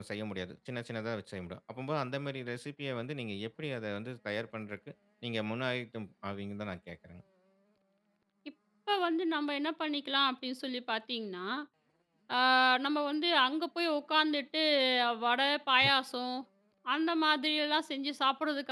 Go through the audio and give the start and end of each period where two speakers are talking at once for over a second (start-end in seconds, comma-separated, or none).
none